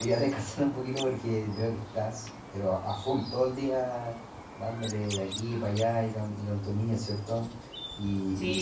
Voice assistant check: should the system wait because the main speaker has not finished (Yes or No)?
No